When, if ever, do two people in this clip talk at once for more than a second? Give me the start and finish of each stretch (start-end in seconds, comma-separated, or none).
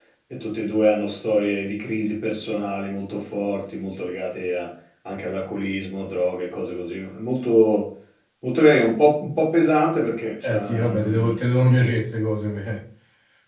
10.4-11.9